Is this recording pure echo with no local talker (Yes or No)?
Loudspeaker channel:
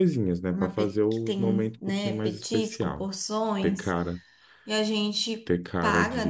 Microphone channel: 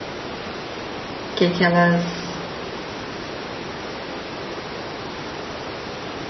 No